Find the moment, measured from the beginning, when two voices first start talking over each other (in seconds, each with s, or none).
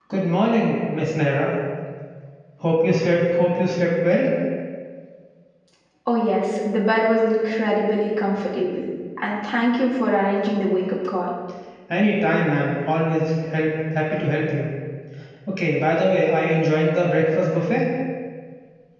none